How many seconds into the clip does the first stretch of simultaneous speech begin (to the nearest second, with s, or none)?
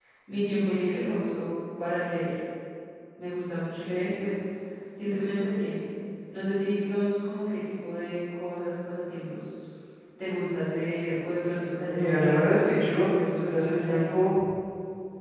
12 s